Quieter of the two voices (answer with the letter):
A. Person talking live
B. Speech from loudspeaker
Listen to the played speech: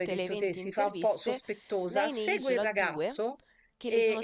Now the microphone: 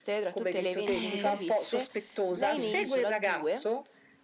A